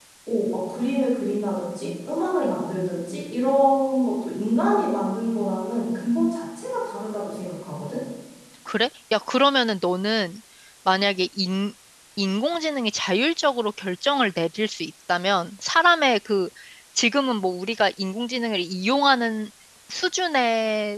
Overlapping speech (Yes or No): No